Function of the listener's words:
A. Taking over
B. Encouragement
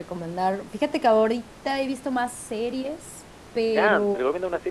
A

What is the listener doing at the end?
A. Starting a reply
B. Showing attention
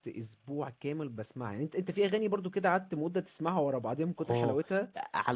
A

